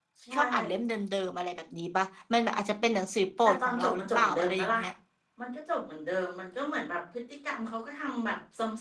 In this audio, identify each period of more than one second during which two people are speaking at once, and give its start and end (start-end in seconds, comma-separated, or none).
3.5-4.8